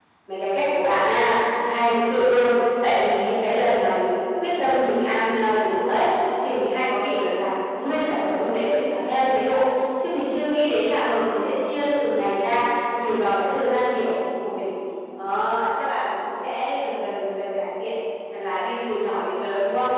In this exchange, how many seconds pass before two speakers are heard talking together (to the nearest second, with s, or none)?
none